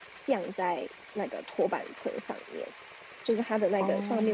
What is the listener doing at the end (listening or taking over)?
listening